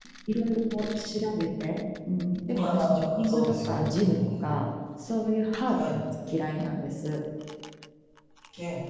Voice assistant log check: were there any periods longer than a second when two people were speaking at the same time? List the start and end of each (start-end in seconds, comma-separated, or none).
2.6-4.6